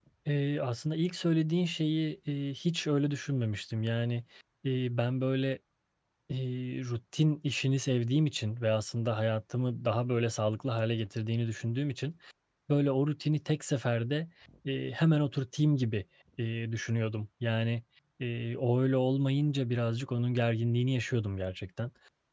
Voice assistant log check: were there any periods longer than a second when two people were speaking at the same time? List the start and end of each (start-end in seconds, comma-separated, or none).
none